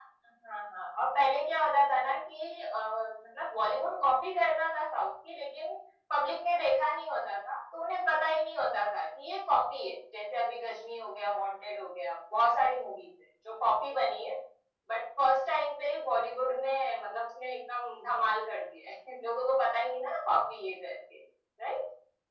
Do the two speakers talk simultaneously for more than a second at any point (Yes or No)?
No